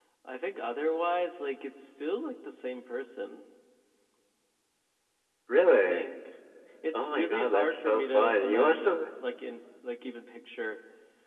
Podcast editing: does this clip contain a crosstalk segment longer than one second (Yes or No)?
Yes